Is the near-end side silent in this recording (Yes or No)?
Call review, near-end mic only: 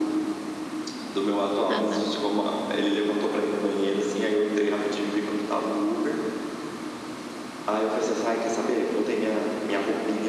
No